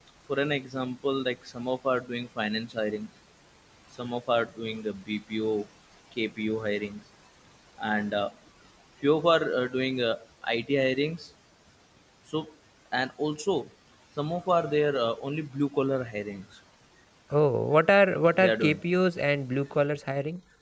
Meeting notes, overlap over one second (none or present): none